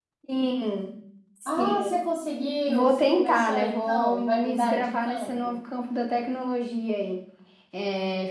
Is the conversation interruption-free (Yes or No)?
No